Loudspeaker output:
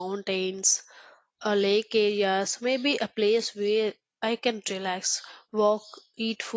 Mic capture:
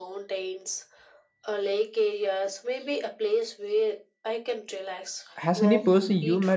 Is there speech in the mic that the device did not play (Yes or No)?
Yes